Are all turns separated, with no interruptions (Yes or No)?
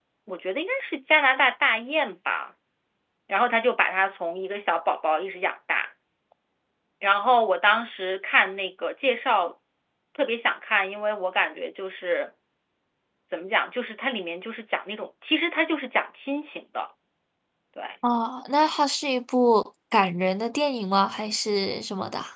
Yes